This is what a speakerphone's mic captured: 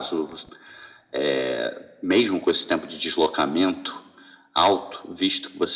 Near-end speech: none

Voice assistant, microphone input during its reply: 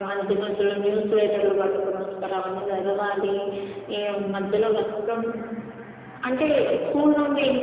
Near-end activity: present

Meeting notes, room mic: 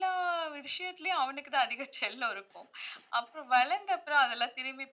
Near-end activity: none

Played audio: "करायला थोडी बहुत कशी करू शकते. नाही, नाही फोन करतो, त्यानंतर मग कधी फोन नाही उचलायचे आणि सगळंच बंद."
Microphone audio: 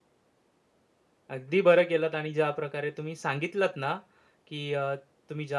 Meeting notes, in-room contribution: present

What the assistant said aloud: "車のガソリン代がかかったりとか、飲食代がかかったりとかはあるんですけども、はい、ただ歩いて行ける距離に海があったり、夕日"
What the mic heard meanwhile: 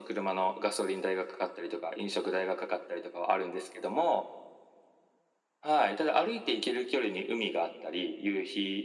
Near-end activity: none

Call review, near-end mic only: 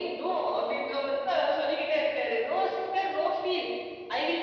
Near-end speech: none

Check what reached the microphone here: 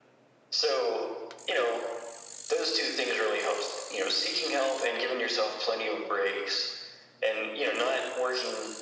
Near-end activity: none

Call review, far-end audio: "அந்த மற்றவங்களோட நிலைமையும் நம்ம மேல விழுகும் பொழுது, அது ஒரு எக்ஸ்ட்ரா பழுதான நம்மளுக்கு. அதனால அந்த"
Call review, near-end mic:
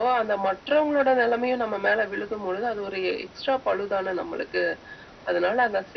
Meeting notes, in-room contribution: none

